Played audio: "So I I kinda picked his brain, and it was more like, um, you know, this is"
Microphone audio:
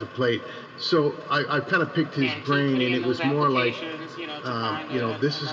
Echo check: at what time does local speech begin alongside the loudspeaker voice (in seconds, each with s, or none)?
2.2 s